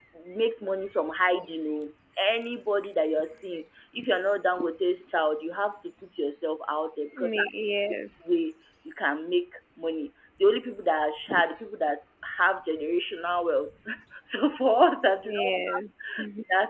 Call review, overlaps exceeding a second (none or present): none